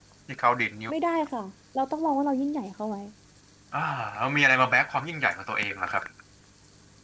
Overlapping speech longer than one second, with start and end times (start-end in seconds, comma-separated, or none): none